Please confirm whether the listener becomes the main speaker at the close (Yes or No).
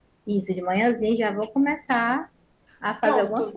Yes